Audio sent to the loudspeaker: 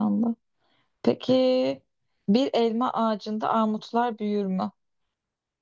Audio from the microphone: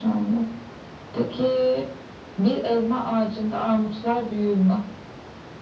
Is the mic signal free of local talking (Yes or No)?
Yes